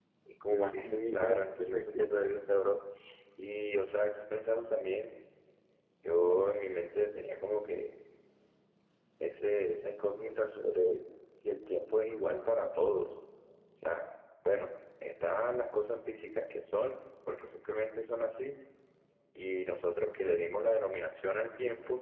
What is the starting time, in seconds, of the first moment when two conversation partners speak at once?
1 s

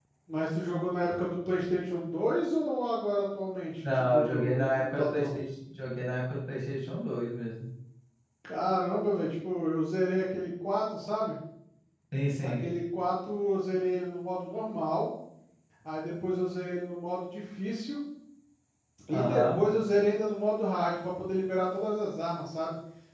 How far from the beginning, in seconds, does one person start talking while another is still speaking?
4 s

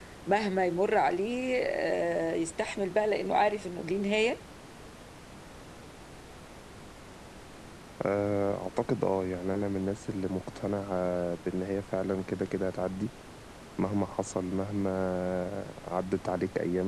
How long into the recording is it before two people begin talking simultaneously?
none

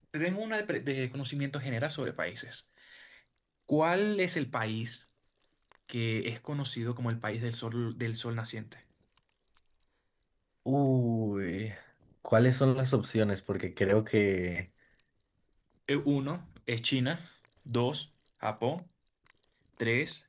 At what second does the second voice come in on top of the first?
none

